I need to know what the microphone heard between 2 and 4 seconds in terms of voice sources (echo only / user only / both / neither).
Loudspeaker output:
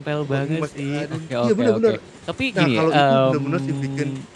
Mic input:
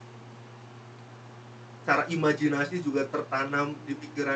user only